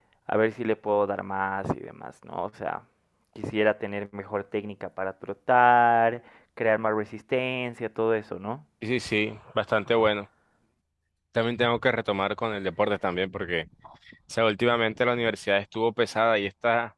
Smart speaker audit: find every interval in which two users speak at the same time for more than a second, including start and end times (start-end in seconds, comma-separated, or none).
none